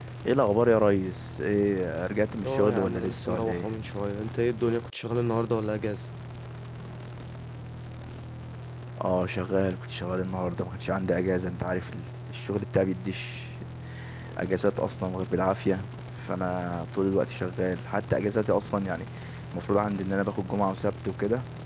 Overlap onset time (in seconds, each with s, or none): 2.4 s